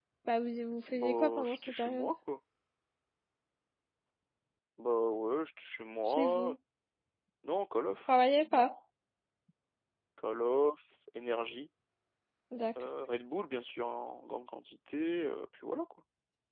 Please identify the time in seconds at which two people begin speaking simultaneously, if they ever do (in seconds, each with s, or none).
0.9 s